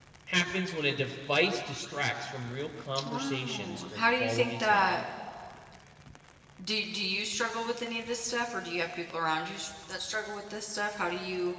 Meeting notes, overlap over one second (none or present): present